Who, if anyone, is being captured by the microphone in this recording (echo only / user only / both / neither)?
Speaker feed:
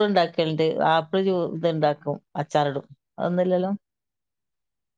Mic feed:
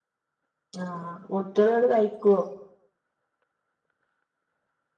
user only